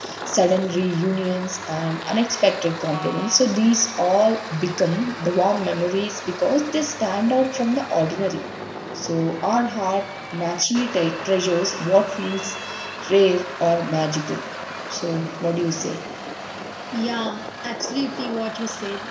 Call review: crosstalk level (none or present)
none